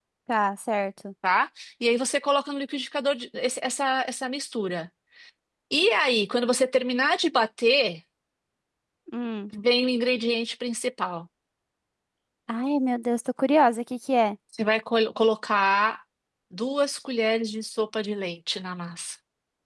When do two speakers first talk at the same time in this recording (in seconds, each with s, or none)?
none